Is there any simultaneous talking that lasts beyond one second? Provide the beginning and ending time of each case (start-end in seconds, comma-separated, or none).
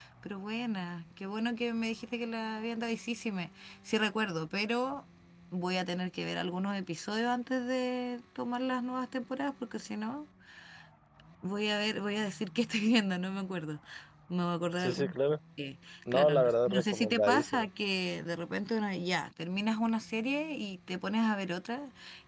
16.1-17.7